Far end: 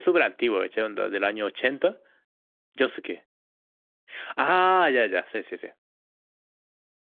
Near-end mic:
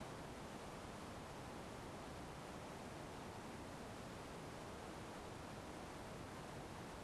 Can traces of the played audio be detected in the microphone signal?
No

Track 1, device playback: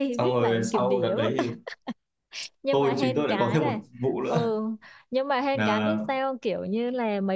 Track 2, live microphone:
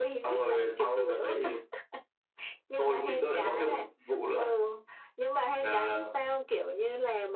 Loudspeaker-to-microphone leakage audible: Yes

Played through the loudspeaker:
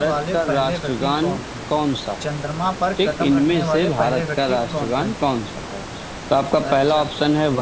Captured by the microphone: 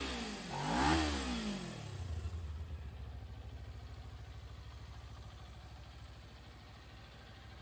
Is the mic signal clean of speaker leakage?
Yes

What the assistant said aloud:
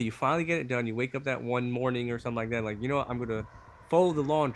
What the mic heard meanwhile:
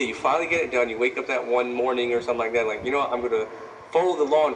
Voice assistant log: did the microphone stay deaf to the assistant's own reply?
No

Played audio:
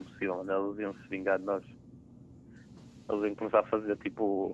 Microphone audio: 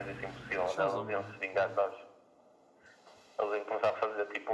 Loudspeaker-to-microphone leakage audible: Yes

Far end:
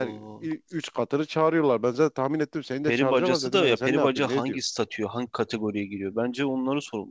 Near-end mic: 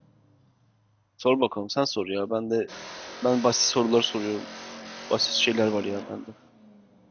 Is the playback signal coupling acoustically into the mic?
No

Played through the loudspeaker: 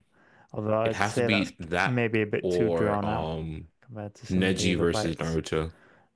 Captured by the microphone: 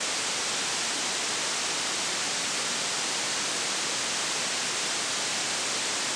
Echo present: No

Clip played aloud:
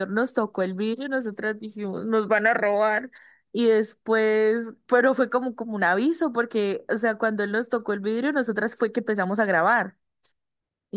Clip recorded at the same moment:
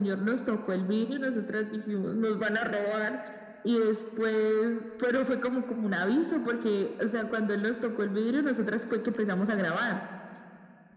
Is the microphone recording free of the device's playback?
No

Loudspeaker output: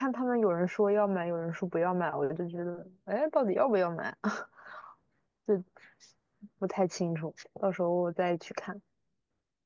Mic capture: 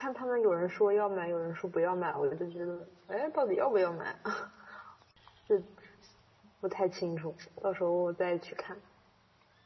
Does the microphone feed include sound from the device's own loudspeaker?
Yes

